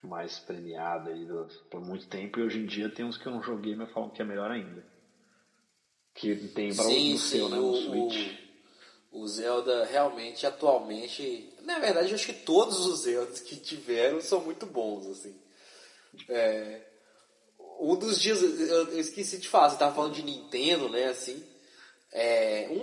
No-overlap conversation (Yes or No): No